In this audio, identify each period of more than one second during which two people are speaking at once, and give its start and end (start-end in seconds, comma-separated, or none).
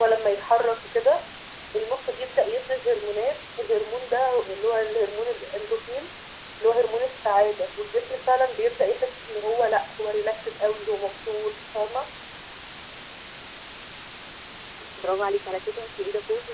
none